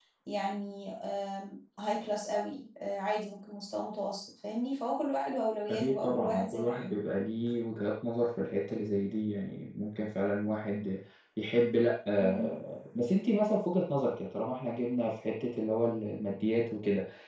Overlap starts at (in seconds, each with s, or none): 5.7 s